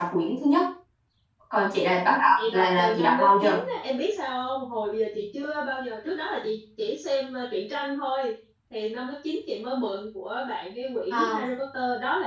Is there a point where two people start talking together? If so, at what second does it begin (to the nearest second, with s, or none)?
2 s